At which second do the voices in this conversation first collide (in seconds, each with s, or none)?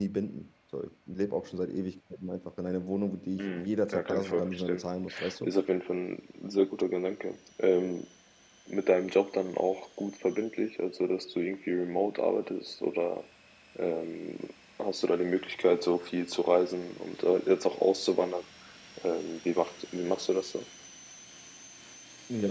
3.4 s